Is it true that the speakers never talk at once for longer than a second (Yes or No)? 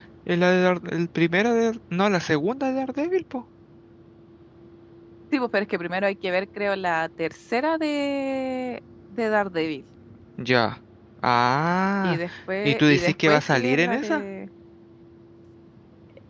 No